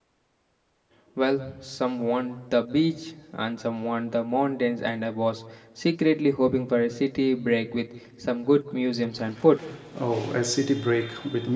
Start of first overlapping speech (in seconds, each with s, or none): none